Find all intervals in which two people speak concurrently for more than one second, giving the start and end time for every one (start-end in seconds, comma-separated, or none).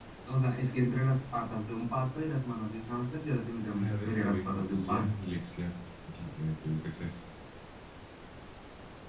3.8-5.2